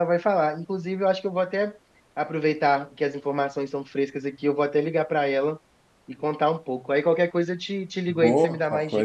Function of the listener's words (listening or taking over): taking over